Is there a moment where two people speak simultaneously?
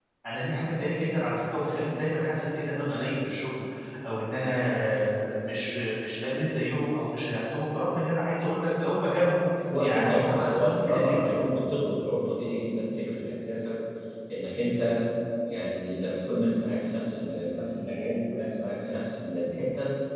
Yes, from 9.6 s

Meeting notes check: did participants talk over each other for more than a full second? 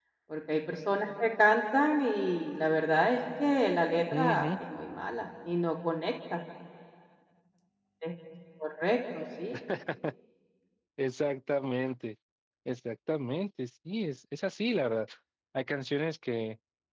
No

